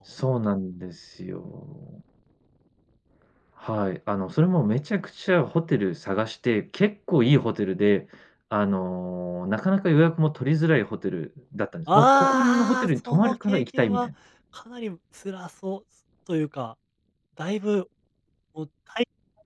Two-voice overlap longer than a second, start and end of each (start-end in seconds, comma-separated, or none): 11.9-14.1